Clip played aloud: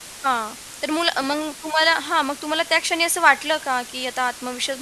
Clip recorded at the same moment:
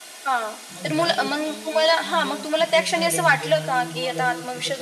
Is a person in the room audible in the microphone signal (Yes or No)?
Yes